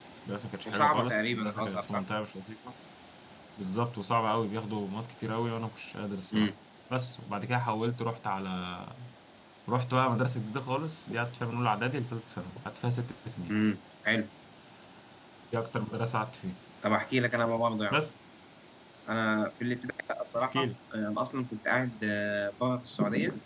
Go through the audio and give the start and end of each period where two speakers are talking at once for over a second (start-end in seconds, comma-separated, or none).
0.6-2.0